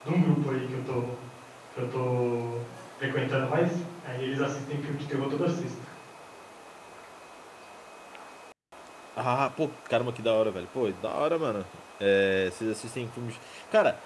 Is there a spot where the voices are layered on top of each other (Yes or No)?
No